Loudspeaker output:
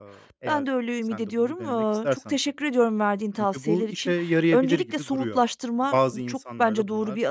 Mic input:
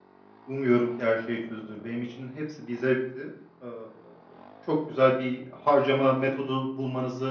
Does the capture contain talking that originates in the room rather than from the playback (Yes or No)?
Yes